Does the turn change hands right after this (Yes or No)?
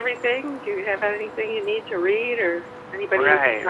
Yes